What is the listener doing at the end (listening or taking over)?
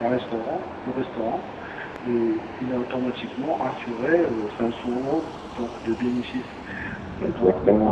listening